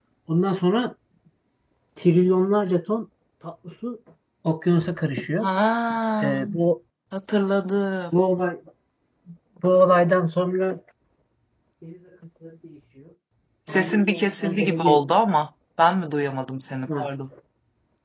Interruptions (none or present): present